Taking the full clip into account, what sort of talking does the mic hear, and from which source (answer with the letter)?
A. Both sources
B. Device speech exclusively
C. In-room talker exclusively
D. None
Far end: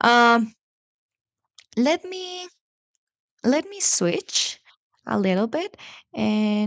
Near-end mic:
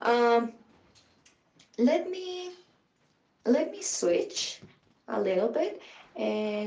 B